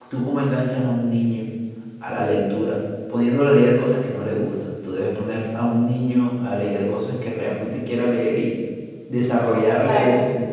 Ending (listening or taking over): listening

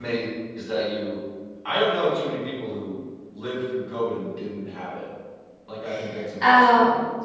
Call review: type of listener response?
taking over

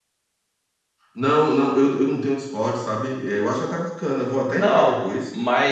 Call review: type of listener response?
taking over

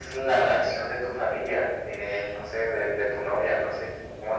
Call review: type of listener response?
taking over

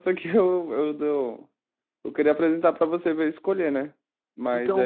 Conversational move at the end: taking over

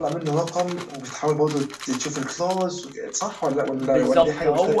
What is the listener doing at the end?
taking over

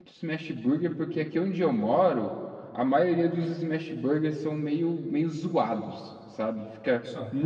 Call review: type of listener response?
listening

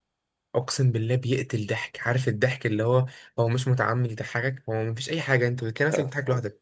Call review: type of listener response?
listening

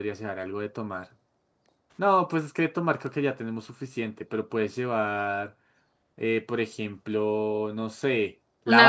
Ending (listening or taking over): listening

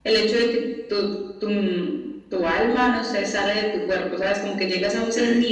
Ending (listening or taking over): listening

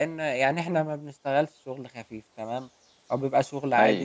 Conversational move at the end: listening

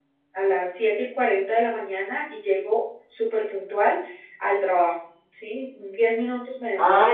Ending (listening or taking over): taking over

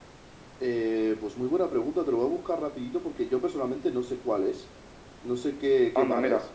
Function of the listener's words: taking over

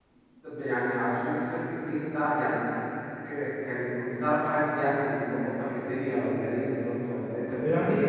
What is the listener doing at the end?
taking over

